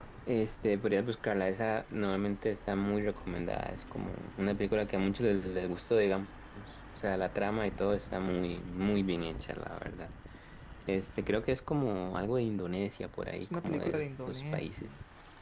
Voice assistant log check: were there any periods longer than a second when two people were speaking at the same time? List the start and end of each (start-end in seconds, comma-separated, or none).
13.4-14.9